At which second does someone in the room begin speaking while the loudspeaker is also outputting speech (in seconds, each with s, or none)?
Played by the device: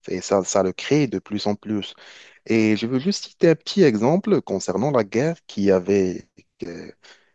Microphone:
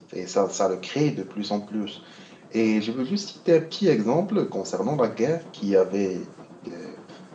none